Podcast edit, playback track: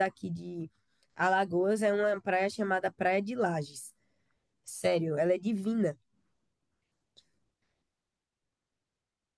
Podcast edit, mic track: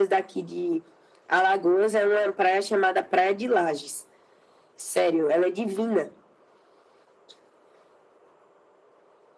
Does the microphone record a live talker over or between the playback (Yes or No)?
No